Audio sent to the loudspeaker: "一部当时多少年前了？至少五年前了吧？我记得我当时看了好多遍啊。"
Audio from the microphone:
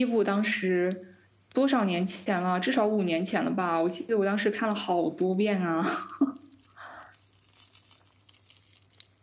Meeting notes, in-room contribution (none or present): none